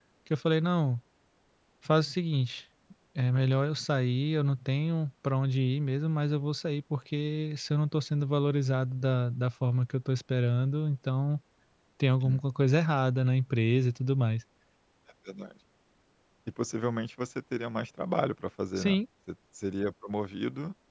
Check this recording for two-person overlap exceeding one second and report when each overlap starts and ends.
none

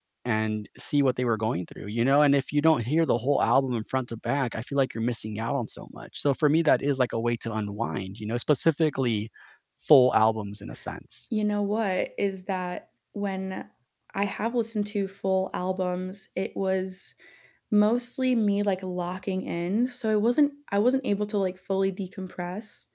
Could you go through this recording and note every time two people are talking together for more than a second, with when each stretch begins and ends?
none

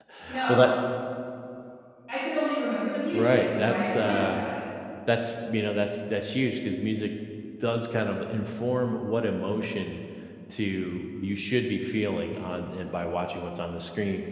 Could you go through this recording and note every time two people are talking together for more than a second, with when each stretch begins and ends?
3.1-4.5

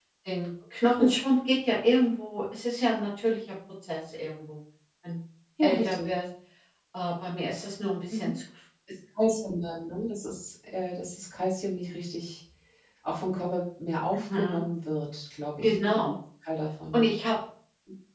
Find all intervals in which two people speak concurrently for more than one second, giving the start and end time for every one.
none

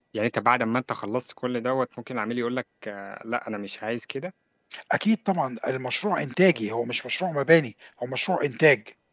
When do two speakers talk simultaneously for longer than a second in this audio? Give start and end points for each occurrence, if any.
none

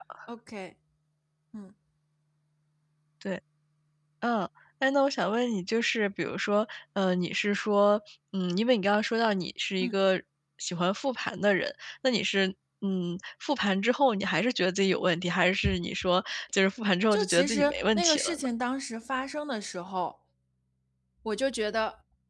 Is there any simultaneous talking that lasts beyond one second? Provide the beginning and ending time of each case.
17.1-18.4

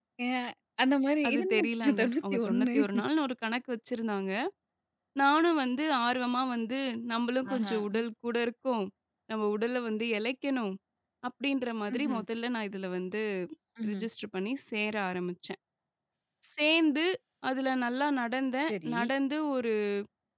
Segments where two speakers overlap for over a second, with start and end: 1.3-2.8

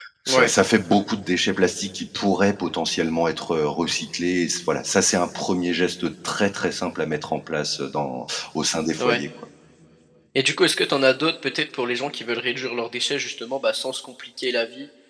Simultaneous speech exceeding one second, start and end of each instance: none

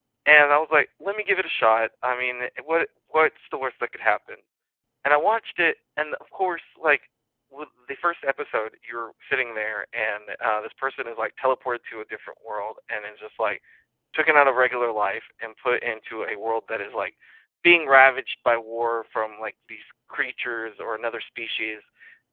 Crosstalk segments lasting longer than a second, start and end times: none

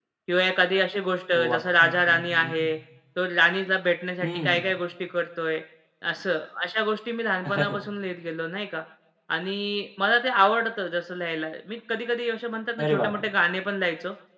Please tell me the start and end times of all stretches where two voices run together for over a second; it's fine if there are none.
1.3-2.8

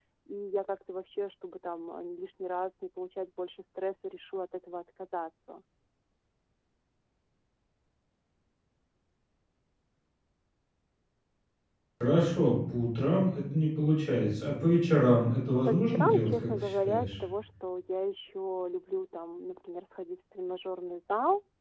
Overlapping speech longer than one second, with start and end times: 15.6-17.1

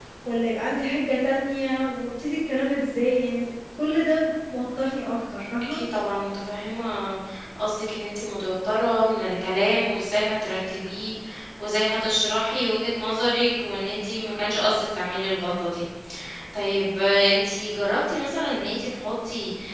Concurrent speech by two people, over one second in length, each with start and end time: none

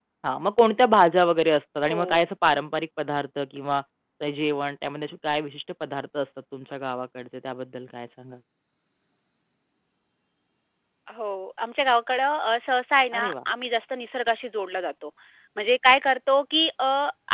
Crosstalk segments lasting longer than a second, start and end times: none

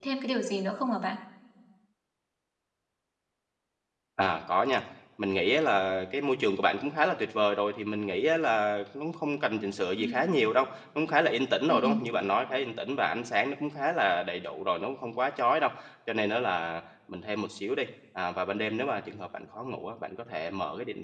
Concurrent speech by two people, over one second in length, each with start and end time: none

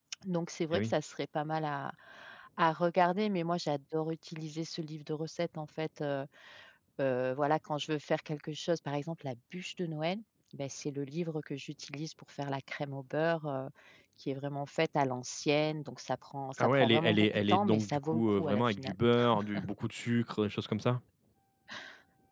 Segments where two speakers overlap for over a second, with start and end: 16.6-18.9

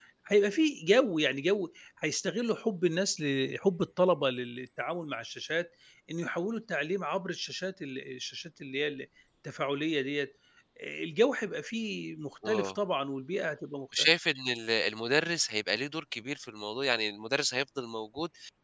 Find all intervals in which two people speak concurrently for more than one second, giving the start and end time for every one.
none

